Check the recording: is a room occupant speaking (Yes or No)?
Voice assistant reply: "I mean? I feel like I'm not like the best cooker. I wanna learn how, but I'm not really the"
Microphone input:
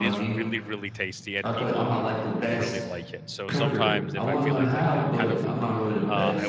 Yes